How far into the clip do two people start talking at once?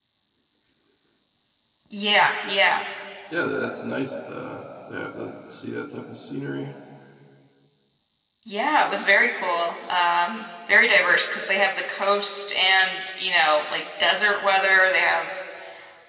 none

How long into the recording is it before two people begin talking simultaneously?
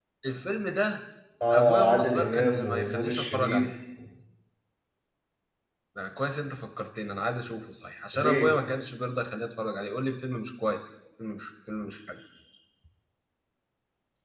1.5 s

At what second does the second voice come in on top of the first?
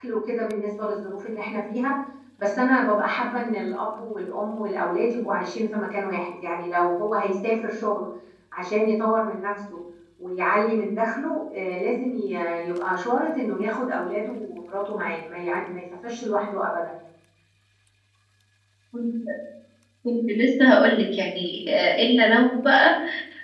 none

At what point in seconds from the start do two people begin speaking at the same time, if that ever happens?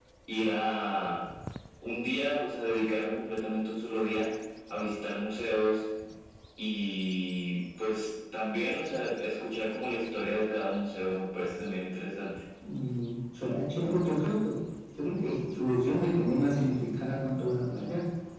none

